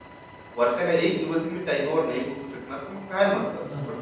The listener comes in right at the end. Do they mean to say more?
Yes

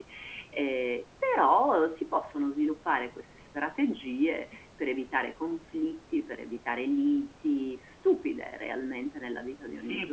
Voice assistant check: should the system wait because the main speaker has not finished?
No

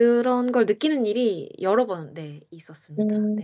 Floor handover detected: Yes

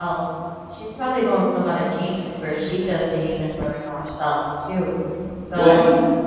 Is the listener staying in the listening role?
Yes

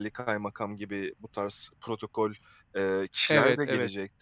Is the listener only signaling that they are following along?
No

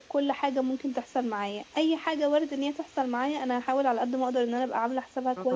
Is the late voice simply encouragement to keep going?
Yes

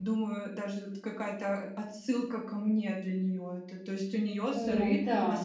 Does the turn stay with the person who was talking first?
Yes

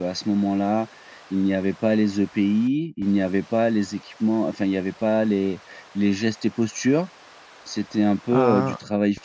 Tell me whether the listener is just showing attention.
Yes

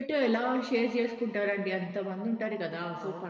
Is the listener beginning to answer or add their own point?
No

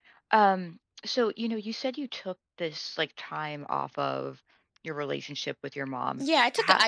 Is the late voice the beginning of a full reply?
Yes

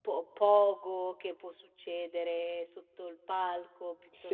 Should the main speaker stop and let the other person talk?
Yes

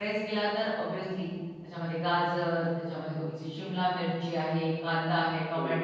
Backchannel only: Yes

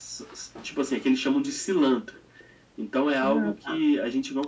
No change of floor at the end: Yes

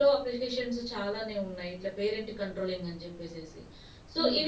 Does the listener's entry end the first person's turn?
No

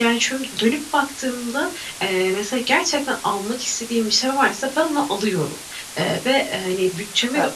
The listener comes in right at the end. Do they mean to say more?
No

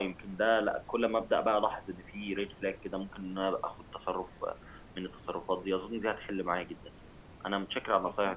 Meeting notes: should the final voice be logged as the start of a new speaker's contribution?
No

